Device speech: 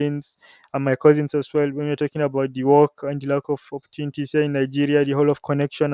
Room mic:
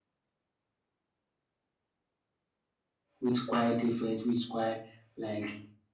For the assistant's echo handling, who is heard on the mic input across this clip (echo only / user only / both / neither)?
user only